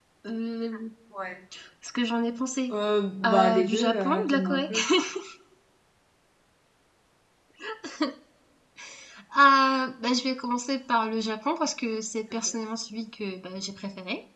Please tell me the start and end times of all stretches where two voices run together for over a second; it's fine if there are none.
3.2-4.6

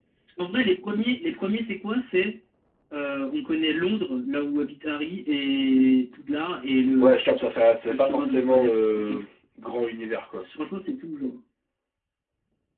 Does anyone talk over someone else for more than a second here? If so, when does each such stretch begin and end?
7.9-9.2

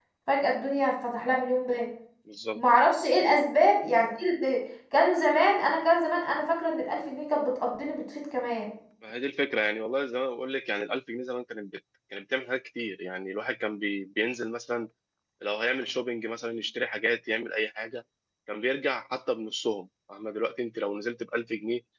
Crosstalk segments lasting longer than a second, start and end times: none

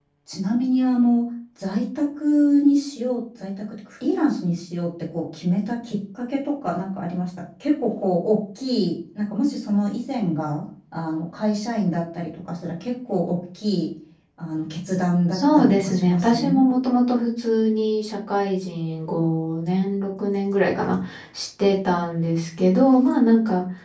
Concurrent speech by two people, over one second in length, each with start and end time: 15.3-16.7

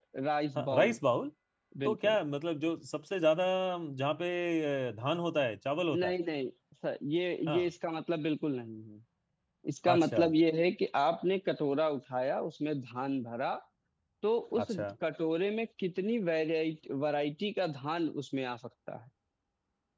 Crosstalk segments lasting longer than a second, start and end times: none

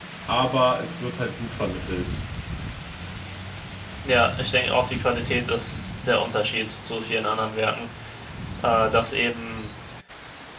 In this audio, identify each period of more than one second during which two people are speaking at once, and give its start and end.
none

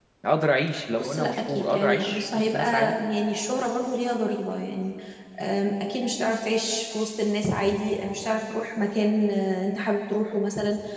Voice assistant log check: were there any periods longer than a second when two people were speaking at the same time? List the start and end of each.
1.0-2.9

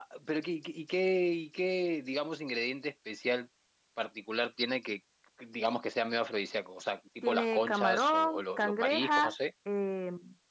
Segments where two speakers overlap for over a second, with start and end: 7.2-9.3

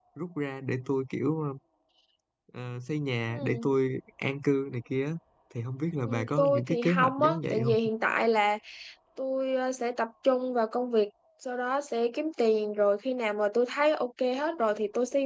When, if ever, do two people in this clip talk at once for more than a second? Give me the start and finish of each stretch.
6.0-7.9

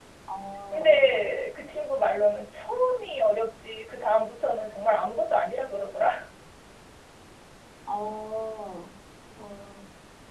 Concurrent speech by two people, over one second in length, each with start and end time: none

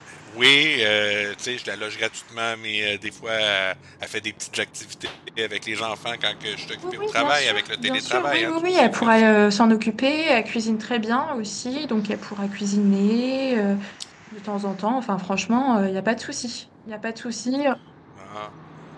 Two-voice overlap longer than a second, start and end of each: 6.9-9.3

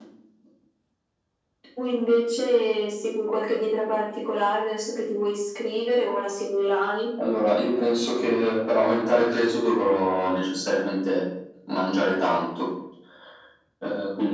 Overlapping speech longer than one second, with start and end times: none

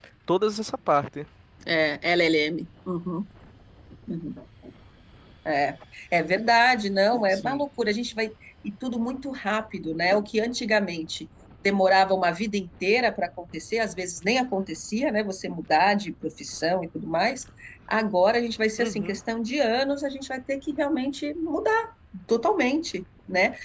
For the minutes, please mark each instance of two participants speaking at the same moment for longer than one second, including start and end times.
none

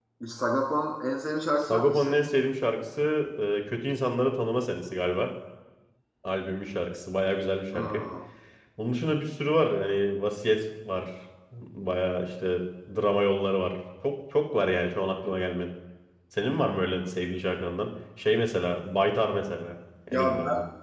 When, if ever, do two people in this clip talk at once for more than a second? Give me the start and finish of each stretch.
none

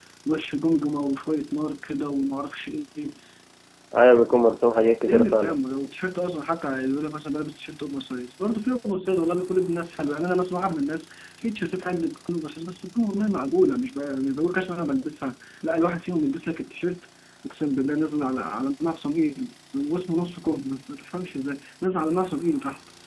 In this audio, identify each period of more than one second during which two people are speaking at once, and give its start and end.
none

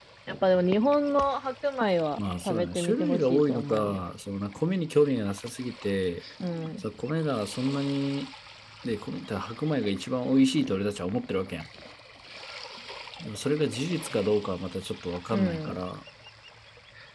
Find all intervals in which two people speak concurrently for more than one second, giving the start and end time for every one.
2.5-4.0

